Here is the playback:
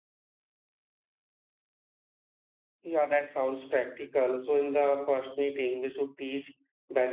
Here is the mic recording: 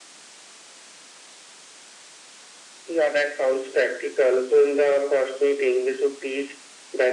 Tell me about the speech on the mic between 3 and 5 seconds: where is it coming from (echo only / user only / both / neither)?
echo only